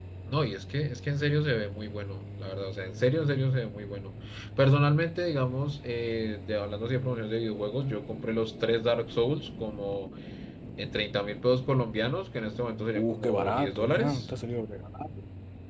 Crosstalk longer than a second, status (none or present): present